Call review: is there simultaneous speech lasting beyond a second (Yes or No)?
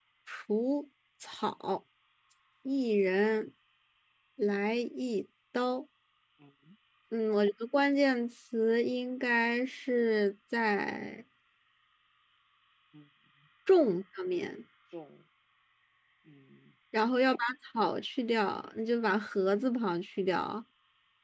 No